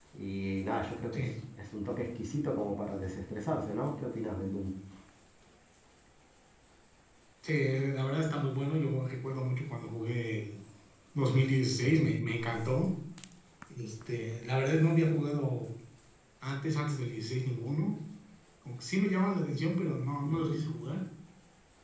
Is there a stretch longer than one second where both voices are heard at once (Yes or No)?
No